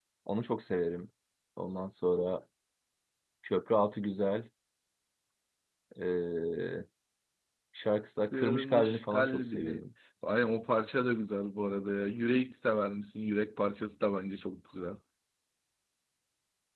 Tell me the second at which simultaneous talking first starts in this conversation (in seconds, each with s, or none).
8.2 s